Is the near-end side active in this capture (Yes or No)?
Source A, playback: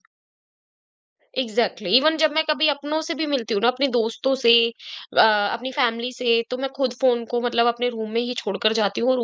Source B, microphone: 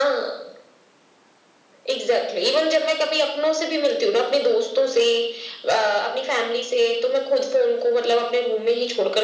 No